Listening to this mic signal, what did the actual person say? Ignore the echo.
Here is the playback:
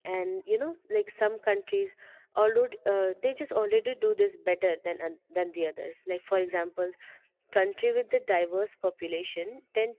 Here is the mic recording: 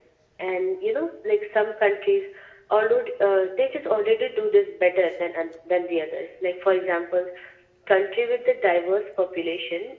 none

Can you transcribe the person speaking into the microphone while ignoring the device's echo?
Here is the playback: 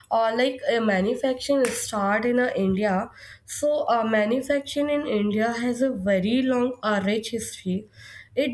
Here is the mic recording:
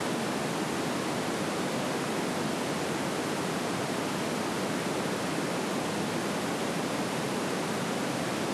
none

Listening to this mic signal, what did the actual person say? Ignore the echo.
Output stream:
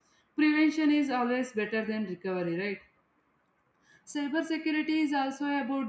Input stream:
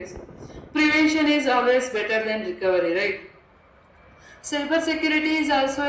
none

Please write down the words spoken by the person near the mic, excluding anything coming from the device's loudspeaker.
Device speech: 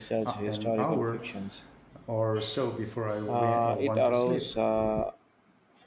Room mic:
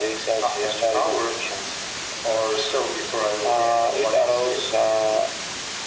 none

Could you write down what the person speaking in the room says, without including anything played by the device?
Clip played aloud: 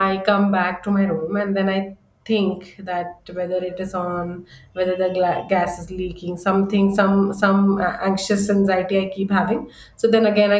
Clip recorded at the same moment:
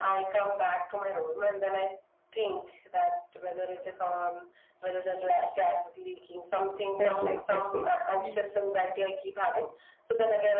felt like that way. So

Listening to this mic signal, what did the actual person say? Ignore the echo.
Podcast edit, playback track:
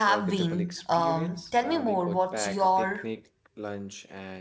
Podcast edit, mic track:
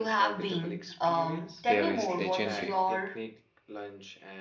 there is legendary.

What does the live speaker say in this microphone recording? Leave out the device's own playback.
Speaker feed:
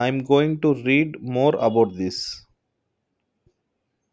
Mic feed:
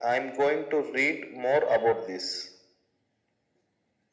none

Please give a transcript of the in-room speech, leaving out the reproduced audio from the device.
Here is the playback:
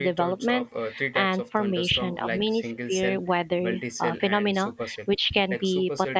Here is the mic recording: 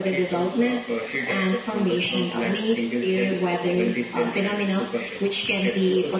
none

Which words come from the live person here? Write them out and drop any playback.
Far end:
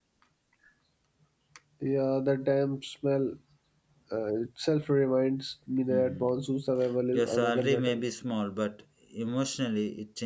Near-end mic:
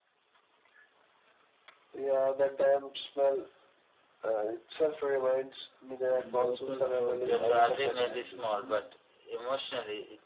and locals were delayed badly, you know.

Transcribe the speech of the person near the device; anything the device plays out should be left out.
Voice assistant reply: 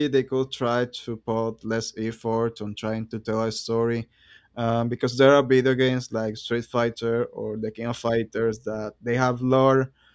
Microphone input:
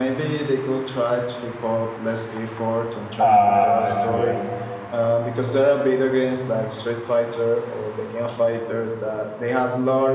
Uh, I forget.

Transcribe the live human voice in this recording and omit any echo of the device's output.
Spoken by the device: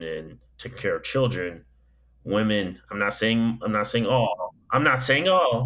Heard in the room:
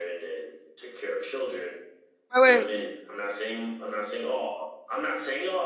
Wait, wait,

